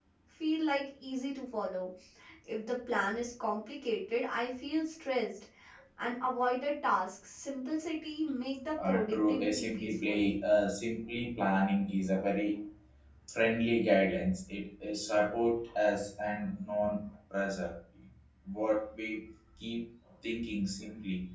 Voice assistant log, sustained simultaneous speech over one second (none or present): present